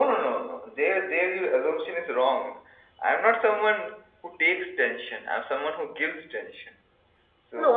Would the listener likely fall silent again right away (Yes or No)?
No